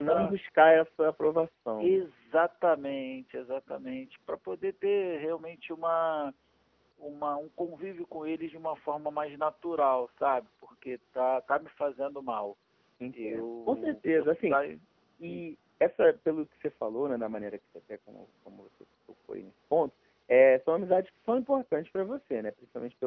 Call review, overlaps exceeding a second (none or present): present